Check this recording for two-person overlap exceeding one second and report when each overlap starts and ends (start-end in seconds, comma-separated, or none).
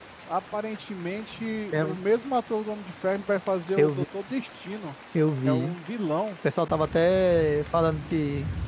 none